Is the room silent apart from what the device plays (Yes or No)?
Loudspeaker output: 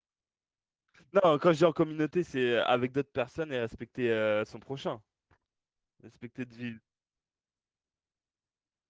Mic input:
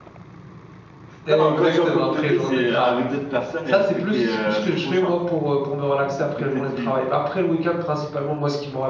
No